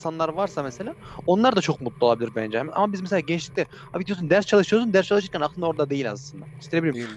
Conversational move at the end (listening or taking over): listening